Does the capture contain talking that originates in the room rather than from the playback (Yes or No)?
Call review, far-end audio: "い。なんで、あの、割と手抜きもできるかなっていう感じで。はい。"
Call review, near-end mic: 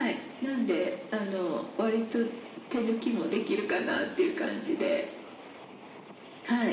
No